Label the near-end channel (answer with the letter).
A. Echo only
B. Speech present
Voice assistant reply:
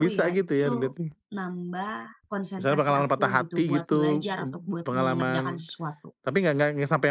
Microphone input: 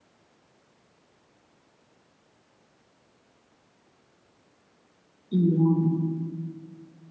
B